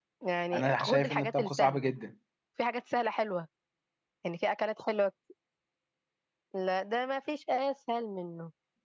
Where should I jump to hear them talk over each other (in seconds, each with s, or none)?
0.5 s